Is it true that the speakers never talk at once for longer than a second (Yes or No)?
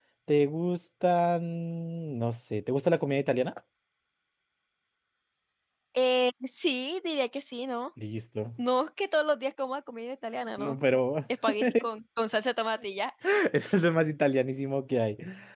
Yes